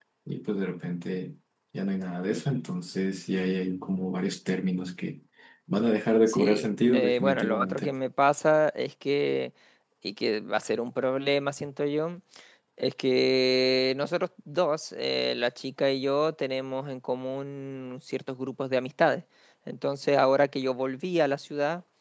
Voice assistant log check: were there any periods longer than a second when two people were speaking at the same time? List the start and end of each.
6.3-7.9

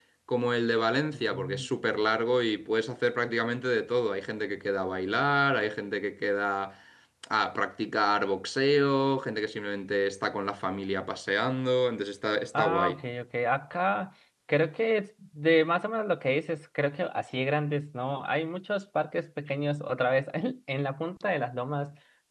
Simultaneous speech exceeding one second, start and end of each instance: none

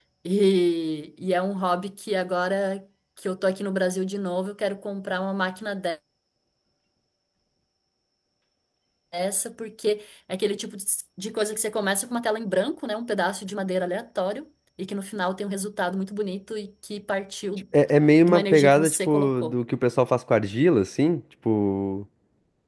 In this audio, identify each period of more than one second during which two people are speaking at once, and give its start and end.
18.2-19.6

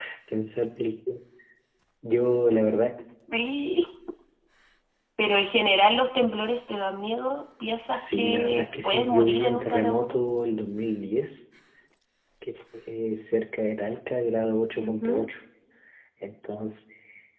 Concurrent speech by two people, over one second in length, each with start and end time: 7.9-10.2

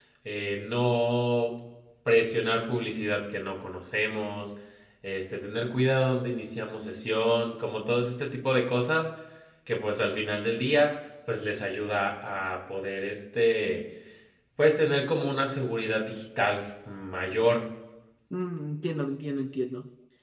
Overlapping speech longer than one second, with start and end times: none

